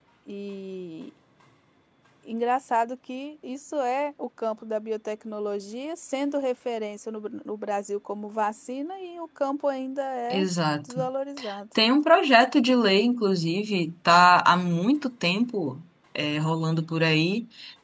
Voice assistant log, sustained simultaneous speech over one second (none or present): none